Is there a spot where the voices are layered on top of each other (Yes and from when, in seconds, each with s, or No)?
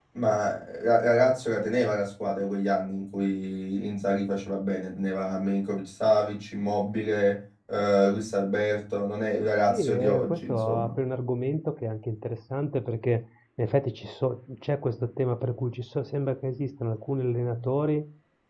Yes, from 9.7 s